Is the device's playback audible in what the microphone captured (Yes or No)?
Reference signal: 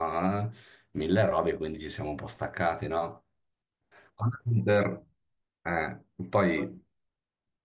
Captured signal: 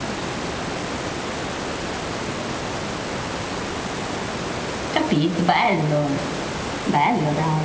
No